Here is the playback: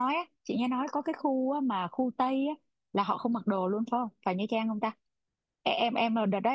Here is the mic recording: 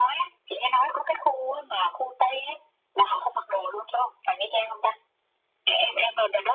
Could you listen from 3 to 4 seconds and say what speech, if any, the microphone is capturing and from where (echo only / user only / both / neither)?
echo only